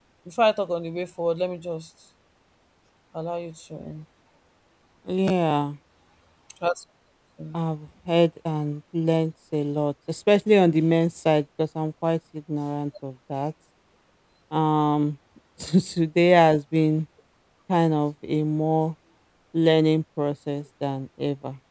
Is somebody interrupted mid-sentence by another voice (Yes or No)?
No